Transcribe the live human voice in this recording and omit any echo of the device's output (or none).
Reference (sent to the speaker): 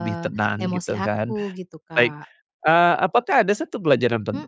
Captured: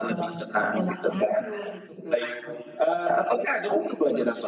none